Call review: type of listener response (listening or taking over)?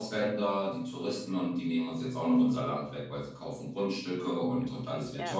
listening